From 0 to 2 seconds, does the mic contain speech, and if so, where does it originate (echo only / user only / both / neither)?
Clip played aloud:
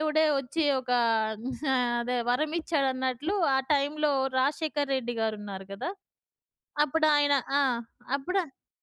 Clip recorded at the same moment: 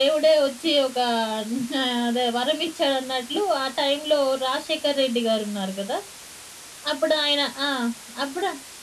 echo only